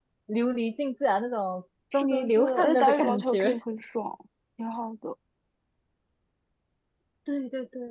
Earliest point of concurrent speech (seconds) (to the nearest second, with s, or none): 2 s